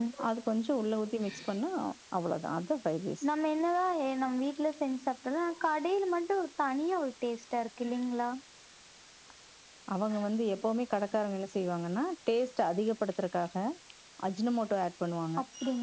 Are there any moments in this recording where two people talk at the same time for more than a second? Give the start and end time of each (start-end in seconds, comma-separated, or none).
none